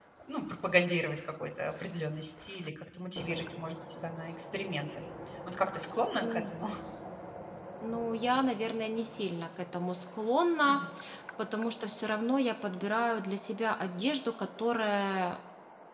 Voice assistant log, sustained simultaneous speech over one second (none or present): none